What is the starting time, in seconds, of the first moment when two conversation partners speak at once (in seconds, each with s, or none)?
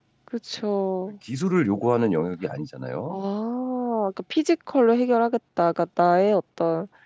none